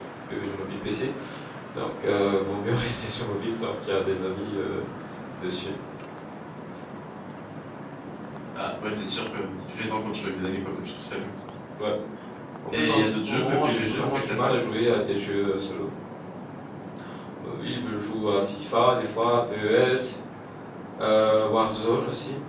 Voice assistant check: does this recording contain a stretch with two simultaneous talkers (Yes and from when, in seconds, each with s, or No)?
Yes, from 12.7 s